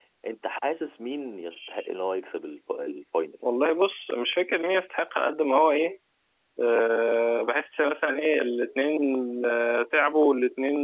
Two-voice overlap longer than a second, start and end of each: none

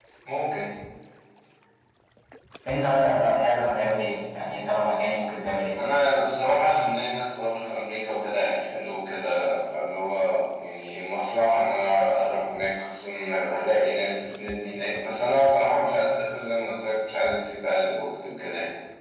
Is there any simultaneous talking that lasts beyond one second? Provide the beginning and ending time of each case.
none

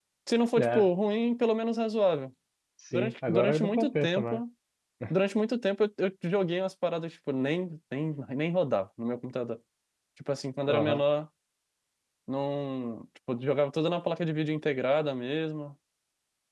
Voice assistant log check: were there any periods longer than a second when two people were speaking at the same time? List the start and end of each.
2.9-4.4

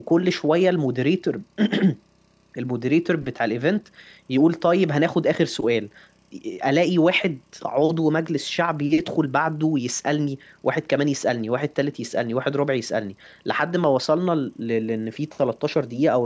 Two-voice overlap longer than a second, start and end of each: none

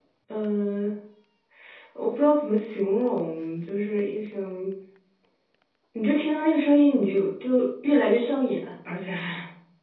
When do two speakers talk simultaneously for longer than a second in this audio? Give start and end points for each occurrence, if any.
none

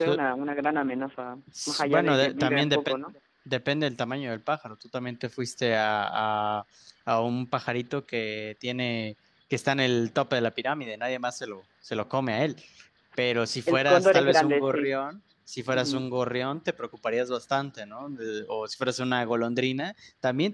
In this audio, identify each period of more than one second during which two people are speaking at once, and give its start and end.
1.7-3.0, 13.7-14.9

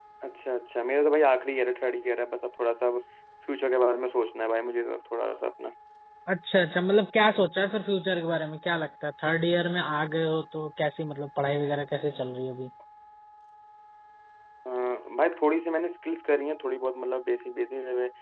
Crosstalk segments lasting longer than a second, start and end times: none

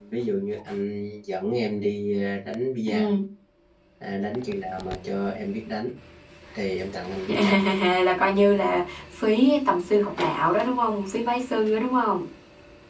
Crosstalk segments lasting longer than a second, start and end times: none

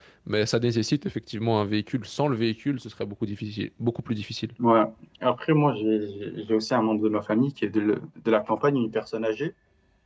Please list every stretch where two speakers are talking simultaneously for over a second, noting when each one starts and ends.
none

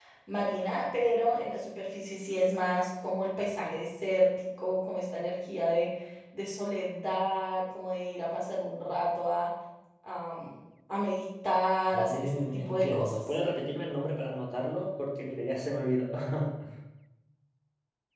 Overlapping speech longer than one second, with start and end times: 11.9-13.2

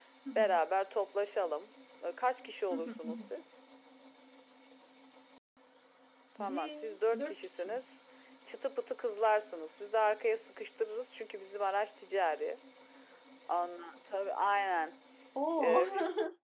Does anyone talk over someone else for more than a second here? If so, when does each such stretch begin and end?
6.4-7.8

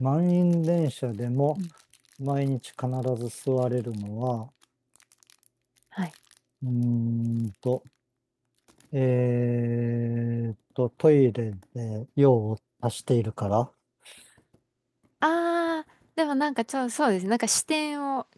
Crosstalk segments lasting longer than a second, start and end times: none

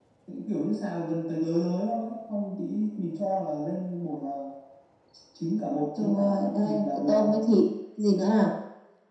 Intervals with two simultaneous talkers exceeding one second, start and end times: 6.0-7.3

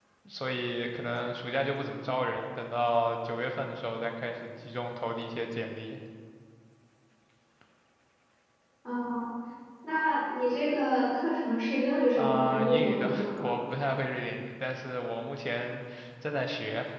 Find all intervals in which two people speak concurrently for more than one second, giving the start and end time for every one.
12.2-13.5

